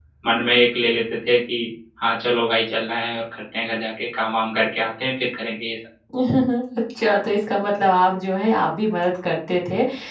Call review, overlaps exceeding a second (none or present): none